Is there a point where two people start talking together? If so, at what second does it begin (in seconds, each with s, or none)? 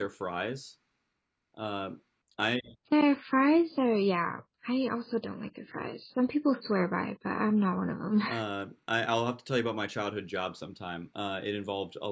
none